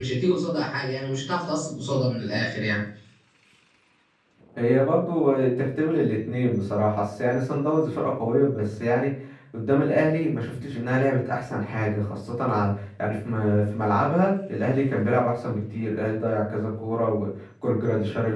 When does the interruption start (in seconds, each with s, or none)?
none